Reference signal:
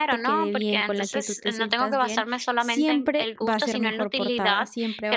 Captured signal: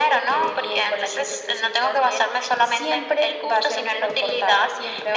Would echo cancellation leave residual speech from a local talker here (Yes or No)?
No